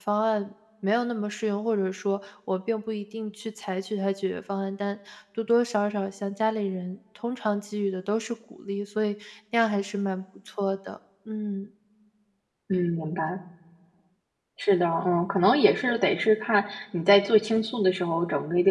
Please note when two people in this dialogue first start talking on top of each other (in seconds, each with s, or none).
none